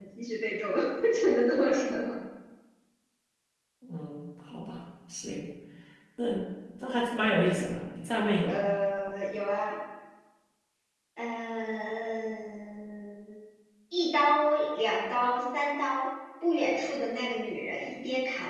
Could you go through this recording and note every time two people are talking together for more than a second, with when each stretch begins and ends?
none

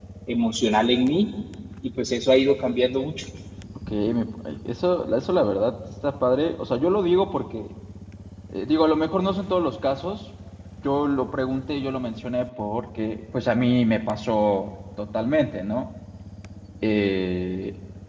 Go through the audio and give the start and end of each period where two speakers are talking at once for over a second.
none

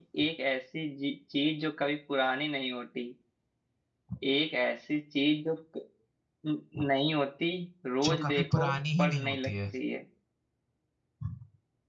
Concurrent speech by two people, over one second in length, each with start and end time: 8.0-9.5

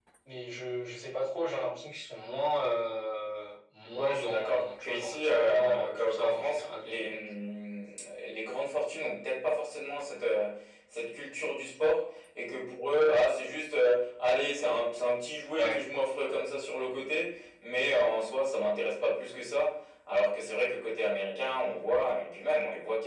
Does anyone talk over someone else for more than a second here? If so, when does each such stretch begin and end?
3.9-7.1

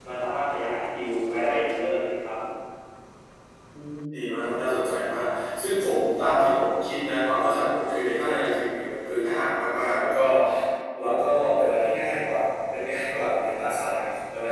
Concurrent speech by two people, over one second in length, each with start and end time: none

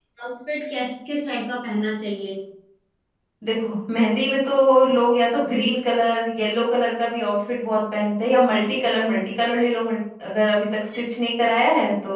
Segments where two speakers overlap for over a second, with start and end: none

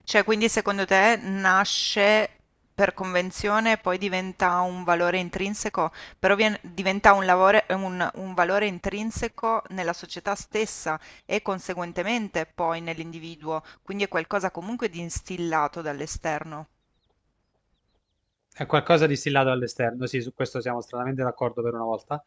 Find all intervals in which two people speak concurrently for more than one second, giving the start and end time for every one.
none

